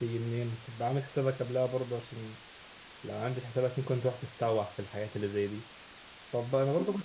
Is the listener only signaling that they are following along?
Yes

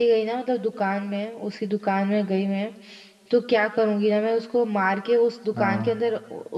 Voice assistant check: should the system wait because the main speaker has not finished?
Yes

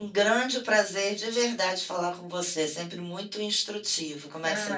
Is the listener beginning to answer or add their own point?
Yes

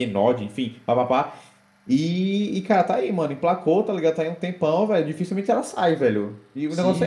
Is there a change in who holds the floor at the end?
Yes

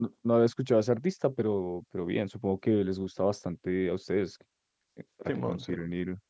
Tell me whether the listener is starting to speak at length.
No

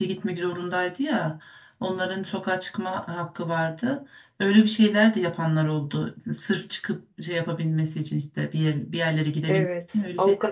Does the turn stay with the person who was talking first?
No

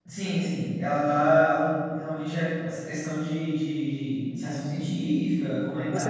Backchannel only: No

